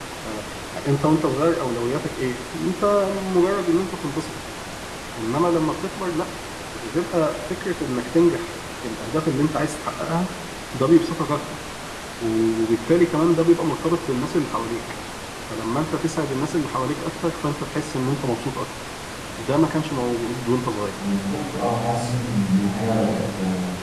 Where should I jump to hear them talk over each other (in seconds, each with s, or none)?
none